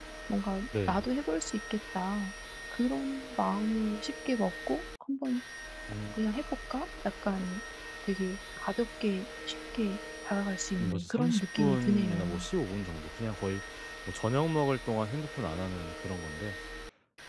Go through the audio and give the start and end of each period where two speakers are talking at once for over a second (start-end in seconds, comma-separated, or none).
10.8-12.4